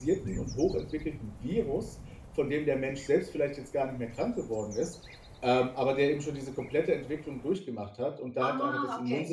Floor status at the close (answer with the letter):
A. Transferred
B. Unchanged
B